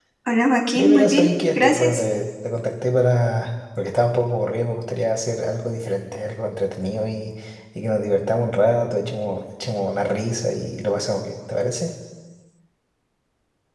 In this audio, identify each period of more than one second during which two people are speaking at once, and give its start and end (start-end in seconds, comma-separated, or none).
0.8-2.0